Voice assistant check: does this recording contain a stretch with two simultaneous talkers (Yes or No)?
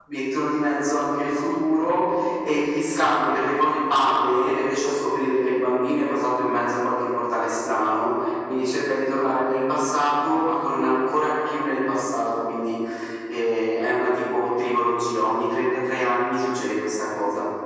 No